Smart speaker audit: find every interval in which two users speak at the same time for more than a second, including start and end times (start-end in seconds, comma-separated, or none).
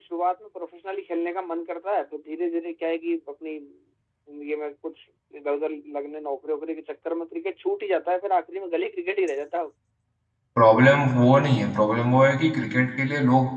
none